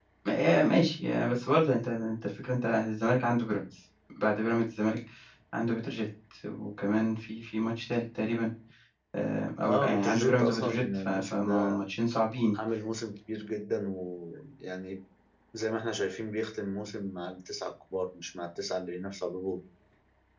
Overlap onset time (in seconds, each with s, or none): 9.7 s